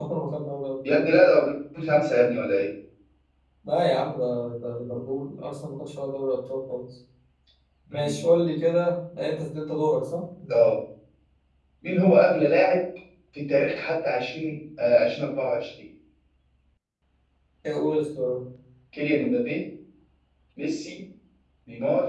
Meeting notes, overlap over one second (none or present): none